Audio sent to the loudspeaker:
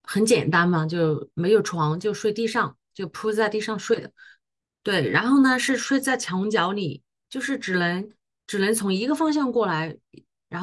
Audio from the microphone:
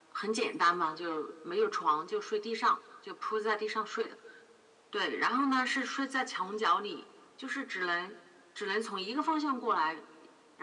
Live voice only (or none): none